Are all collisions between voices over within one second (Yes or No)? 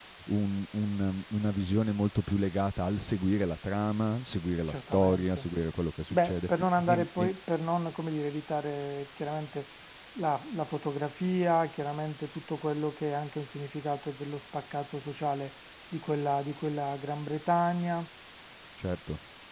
No